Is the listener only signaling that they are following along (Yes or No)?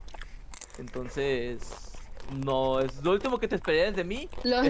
No